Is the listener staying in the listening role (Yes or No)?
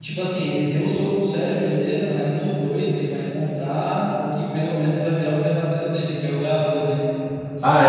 No